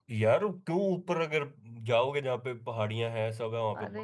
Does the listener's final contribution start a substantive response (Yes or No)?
Yes